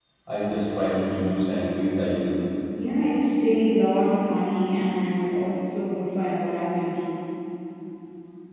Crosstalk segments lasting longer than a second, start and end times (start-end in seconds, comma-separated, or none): none